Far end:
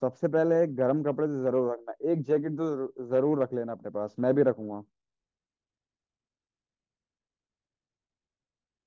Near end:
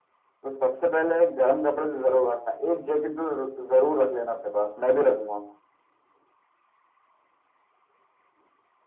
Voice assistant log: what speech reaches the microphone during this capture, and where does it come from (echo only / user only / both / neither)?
echo only